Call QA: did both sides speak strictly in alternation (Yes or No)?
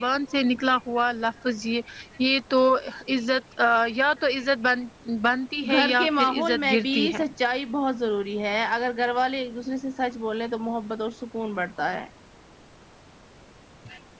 No